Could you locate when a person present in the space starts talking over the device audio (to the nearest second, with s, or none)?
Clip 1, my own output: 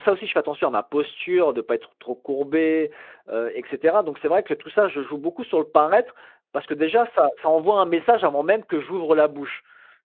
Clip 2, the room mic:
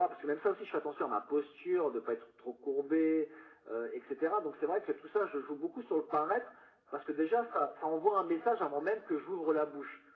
none